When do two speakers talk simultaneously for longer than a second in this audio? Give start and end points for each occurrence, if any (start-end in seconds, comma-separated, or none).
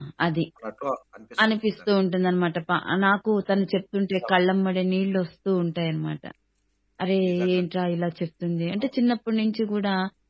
none